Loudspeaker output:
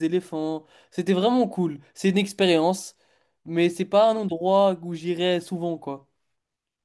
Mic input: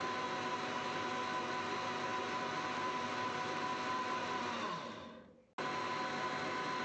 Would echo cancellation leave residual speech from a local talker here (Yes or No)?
No